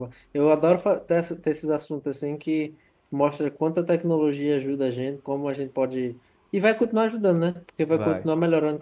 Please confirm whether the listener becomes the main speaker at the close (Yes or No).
No